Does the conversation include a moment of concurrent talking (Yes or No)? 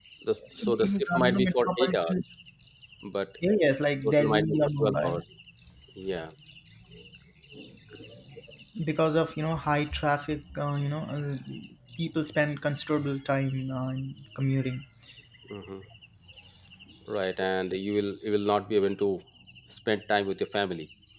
Yes